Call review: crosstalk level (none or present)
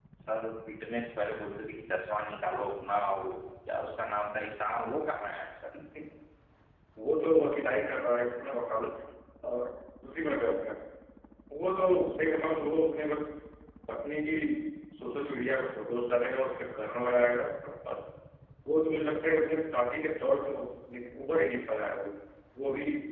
none